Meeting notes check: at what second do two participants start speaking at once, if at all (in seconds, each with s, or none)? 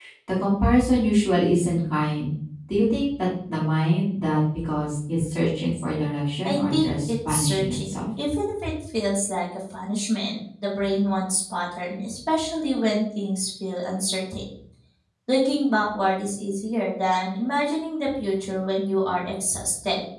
6.4 s